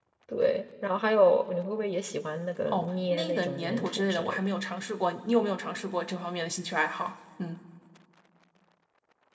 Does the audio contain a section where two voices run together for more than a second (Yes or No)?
Yes